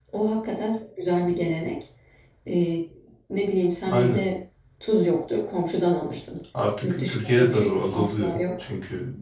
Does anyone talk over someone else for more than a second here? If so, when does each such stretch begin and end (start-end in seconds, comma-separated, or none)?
6.8-8.6